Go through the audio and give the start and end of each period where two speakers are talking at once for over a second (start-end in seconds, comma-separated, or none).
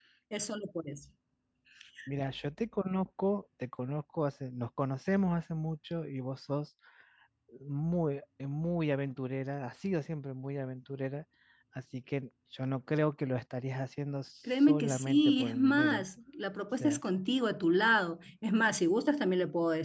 14.6-16.0